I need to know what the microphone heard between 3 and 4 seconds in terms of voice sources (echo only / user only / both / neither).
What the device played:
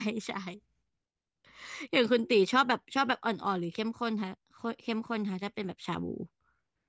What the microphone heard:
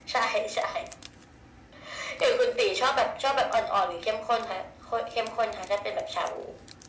echo only